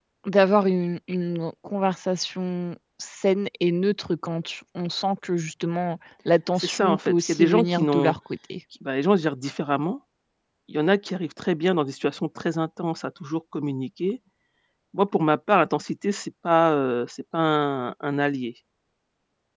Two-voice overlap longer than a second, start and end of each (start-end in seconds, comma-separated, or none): 6.6-8.2